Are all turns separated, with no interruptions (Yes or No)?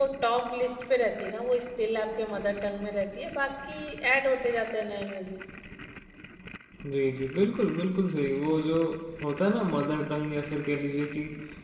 Yes